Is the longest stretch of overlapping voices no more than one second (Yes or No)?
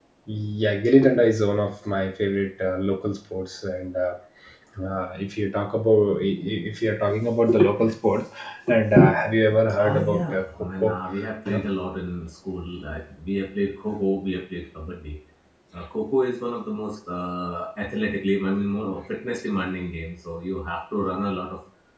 No